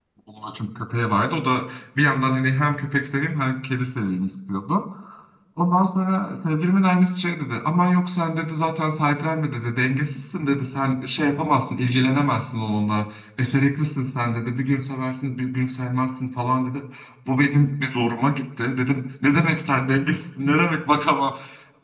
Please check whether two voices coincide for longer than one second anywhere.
No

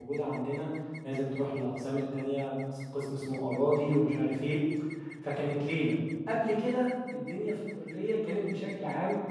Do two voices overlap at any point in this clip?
No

